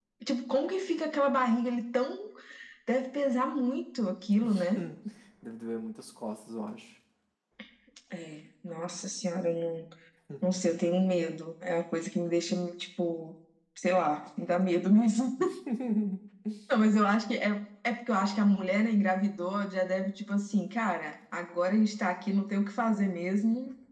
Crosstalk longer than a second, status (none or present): none